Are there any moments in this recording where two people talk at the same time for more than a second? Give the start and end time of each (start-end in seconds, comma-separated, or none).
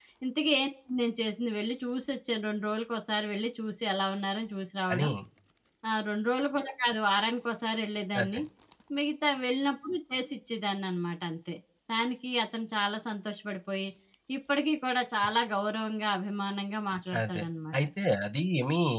none